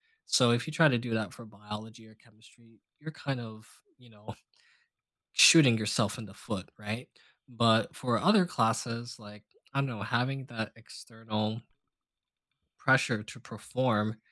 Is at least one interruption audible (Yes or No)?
No